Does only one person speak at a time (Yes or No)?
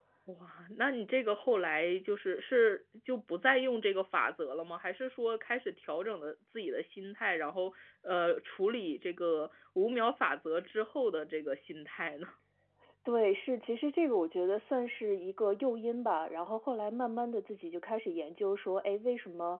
Yes